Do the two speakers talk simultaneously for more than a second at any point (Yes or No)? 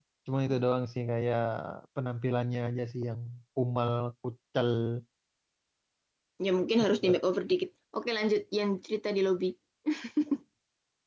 No